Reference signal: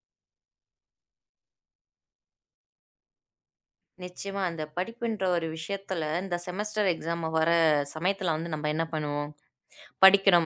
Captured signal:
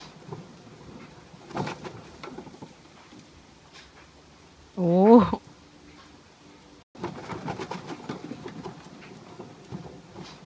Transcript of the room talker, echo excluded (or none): ஓ!